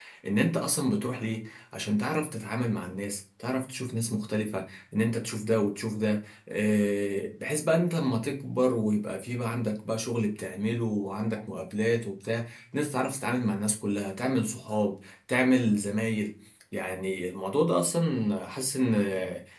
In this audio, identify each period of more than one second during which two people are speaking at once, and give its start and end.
none

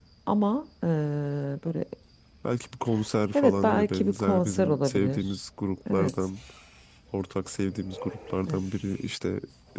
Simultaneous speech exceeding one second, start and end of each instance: 3.3-5.2

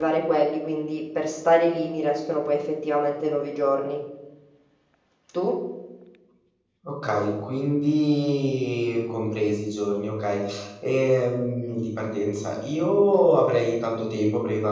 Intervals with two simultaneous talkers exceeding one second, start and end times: none

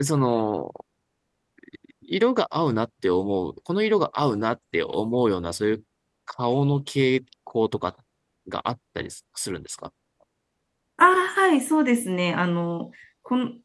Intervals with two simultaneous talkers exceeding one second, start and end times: none

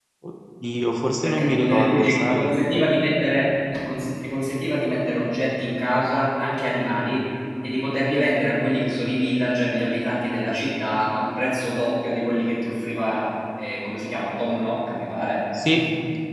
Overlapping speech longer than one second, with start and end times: 1.2-2.5

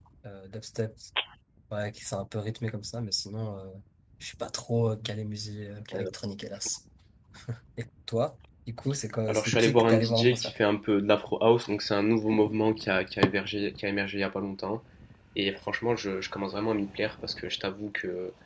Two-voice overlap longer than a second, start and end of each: 9.3-10.5

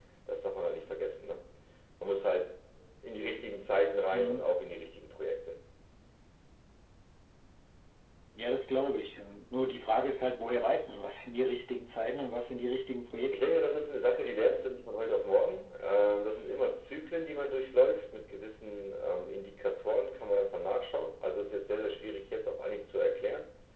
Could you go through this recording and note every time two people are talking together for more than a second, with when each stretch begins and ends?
none

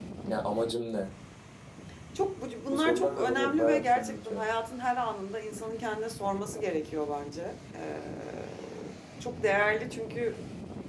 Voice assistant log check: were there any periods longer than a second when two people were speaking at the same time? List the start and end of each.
2.7-4.4

